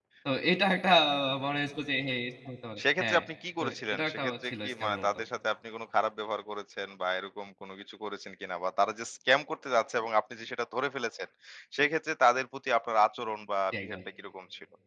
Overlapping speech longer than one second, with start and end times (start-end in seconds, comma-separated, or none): 3.6-5.1